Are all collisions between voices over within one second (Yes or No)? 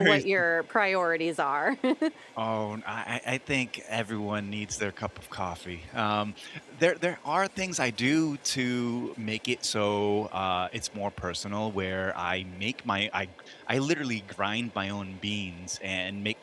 Yes